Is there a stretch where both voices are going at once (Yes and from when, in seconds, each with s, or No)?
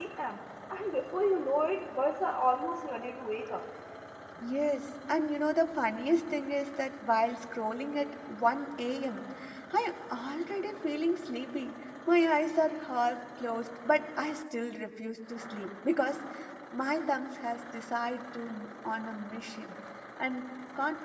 No